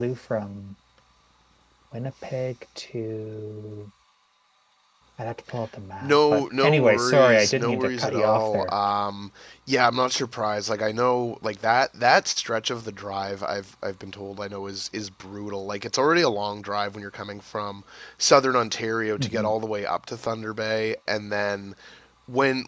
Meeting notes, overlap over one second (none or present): present